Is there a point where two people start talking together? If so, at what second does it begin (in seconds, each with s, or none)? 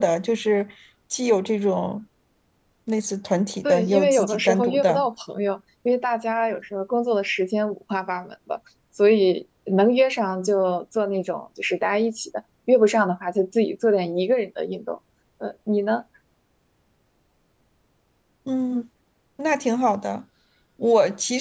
3.6 s